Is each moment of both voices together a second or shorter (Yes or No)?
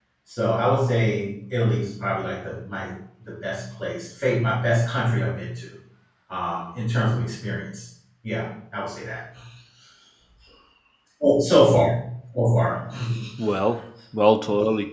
Yes